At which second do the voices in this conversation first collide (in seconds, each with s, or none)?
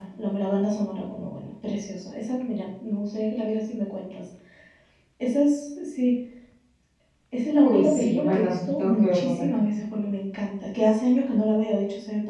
7.6 s